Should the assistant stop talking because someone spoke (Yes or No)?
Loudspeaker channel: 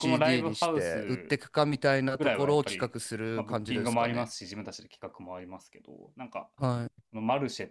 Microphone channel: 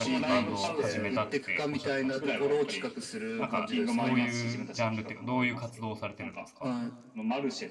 Yes